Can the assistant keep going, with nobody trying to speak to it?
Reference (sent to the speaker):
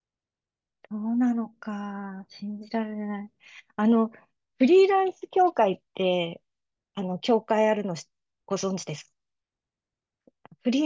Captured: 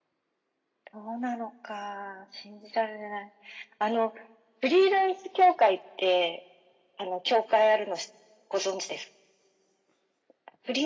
Yes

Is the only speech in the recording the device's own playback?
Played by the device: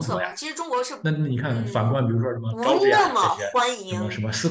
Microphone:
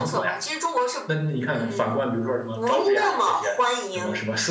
Yes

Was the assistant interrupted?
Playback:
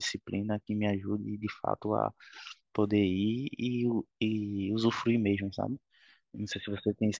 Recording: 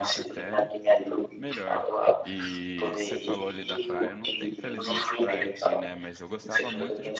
Yes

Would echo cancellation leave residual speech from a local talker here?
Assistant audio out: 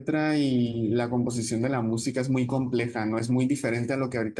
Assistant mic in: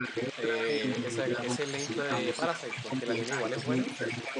Yes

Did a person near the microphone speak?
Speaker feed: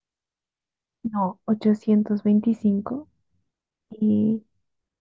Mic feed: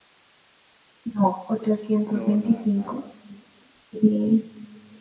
Yes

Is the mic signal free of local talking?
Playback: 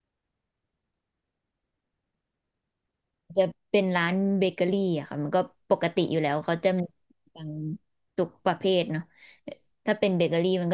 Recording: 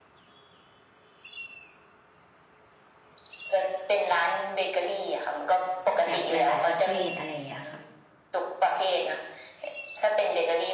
No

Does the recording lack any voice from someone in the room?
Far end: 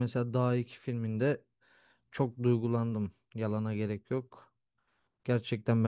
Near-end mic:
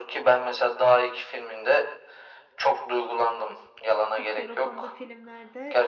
No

